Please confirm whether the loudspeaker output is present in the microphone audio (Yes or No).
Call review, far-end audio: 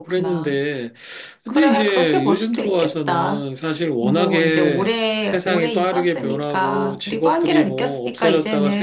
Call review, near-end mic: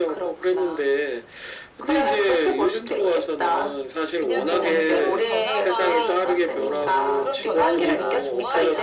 Yes